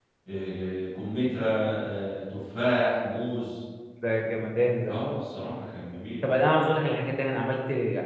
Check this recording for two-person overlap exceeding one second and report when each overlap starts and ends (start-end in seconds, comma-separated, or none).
none